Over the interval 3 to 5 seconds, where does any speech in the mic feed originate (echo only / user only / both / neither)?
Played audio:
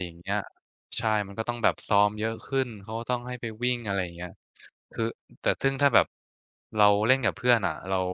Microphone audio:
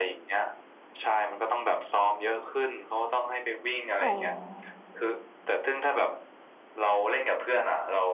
both